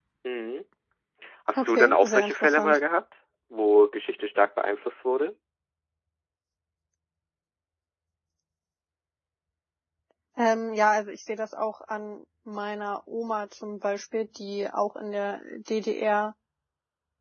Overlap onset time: 1.6 s

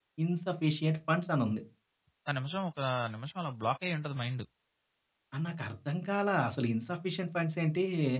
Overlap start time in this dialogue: none

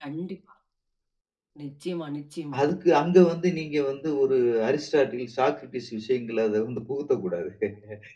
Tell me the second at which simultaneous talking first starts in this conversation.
none

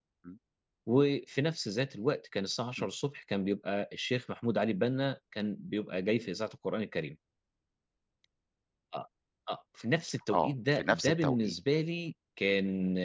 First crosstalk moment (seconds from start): 10.3 s

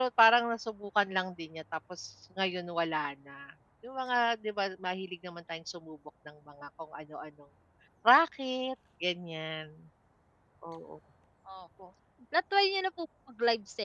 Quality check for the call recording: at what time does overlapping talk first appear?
none

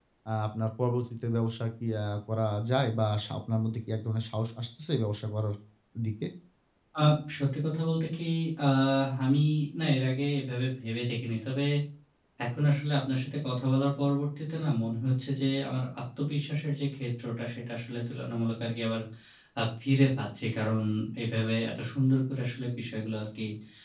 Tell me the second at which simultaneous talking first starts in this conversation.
none

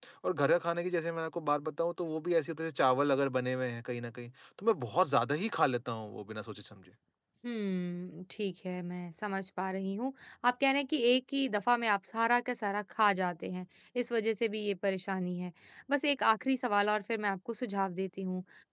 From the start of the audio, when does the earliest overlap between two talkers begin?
none

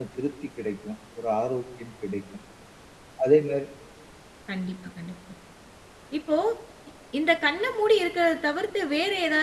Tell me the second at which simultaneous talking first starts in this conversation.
none

